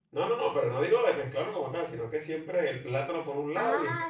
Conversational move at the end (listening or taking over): taking over